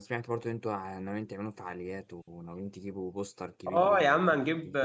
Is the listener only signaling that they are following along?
No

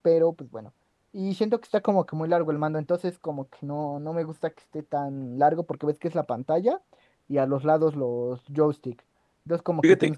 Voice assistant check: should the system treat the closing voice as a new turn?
No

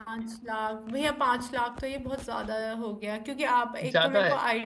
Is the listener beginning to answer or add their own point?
No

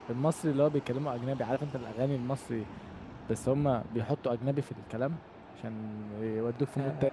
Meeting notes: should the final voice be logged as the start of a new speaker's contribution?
Yes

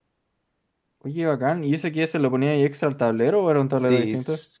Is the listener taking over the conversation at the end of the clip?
Yes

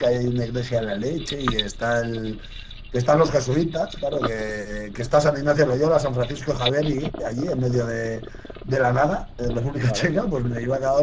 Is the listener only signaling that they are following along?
Yes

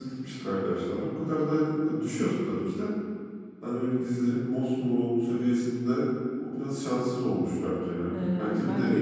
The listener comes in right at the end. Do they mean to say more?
Yes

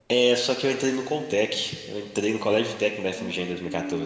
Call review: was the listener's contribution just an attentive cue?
Yes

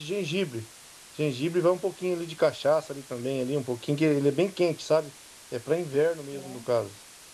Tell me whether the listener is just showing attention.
Yes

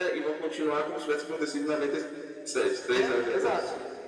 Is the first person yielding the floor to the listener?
Yes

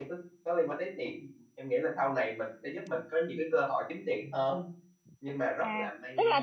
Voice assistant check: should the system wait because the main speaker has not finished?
No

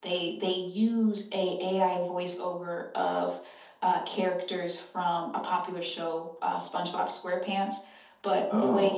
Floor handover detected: No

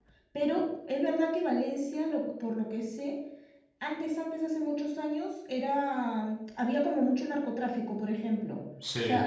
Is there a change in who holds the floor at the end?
No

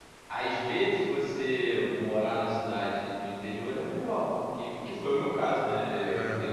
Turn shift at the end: No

